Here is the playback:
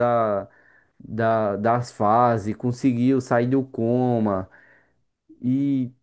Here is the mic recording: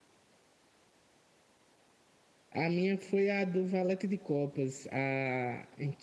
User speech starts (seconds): 2.5 s

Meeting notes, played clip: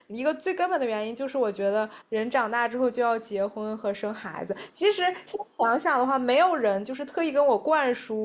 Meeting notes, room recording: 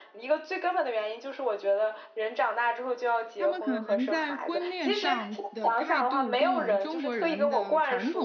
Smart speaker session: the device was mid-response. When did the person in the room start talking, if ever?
3.4 s

